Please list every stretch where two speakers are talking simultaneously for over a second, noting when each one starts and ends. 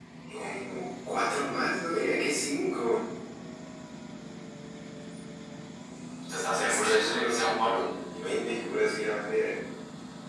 6.5-7.9

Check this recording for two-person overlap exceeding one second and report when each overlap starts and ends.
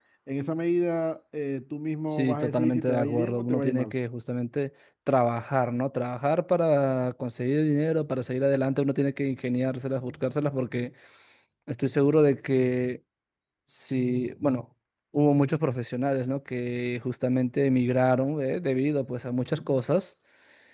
2.1-3.9

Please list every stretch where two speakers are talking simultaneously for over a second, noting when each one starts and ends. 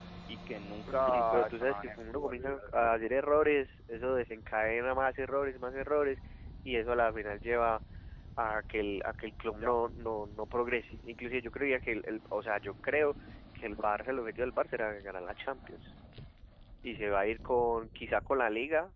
0.9-3.1

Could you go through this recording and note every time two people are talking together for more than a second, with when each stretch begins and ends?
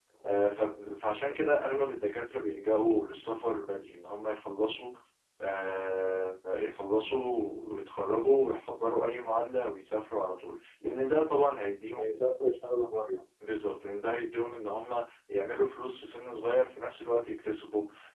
none

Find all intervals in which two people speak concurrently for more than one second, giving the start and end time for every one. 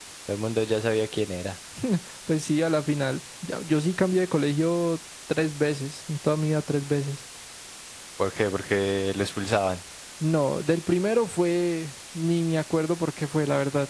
none

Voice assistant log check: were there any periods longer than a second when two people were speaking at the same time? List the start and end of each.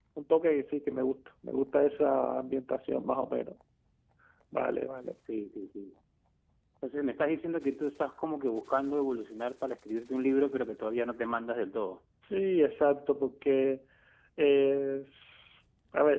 none

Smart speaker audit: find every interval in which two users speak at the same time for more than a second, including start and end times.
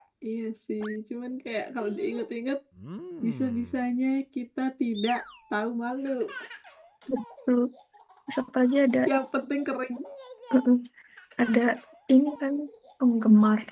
none

